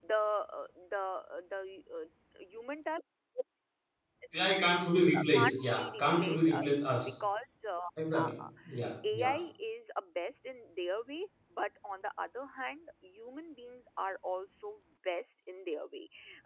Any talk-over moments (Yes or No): Yes